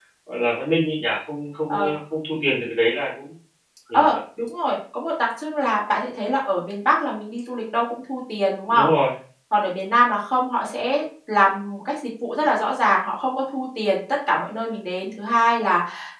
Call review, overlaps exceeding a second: none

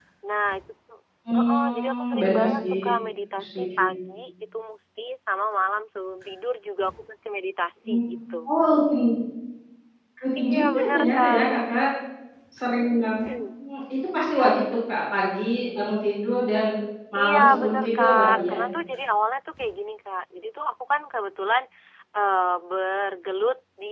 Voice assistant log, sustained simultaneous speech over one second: present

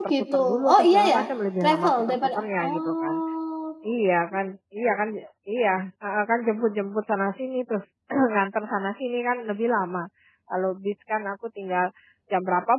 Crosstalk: present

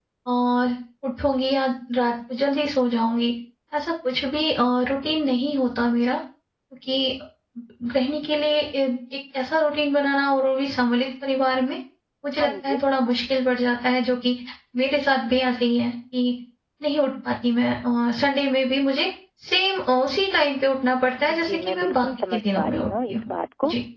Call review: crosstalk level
present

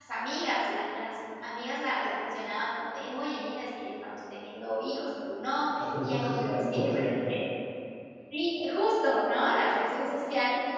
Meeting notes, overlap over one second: present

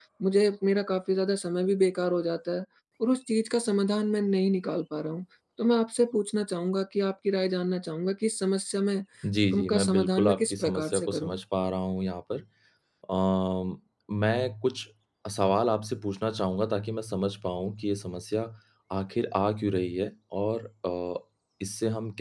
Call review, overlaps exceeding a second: present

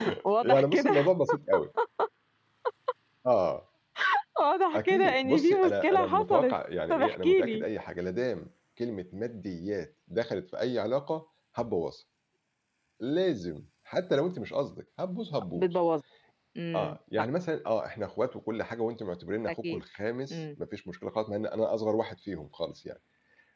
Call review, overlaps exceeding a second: present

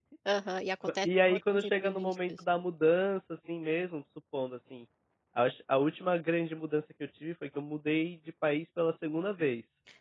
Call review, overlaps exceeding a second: present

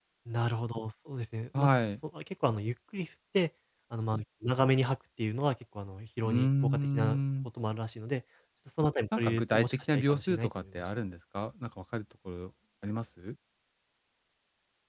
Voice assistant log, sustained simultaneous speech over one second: present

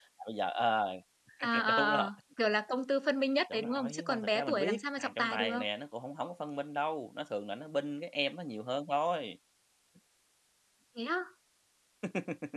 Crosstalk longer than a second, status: present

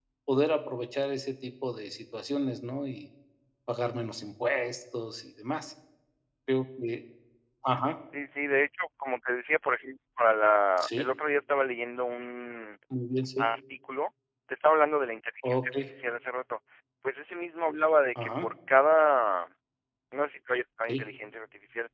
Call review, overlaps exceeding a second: none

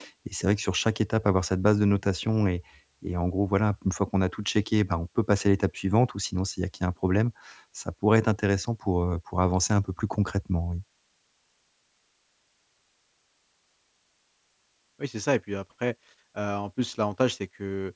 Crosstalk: none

